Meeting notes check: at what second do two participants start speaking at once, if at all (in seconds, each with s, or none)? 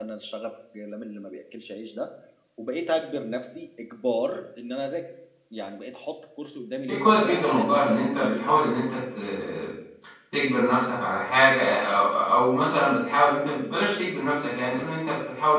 6.9 s